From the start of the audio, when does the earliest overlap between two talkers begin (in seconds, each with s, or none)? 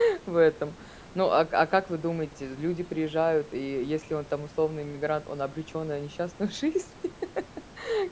none